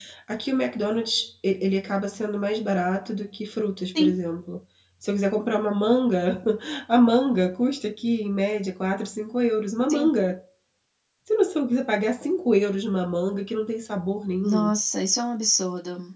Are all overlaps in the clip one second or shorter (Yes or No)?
Yes